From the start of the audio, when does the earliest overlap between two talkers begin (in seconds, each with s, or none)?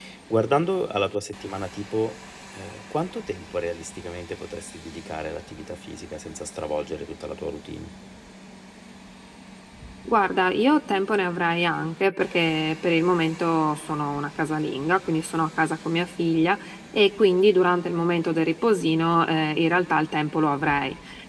none